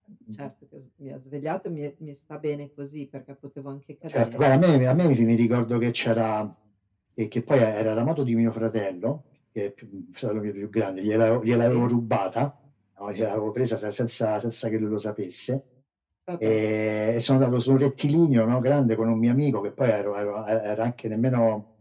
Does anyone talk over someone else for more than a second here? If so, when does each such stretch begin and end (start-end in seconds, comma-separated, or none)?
4.1-5.5